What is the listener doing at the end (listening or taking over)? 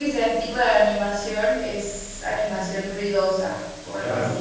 taking over